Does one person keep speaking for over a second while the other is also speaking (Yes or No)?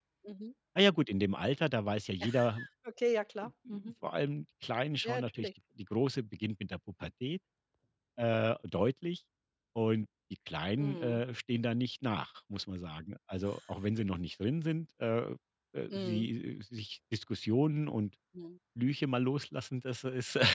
No